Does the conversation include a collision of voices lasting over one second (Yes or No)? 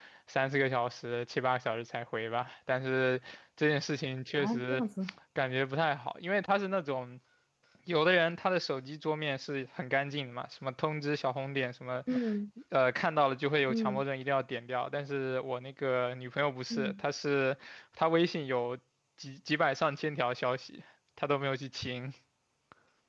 No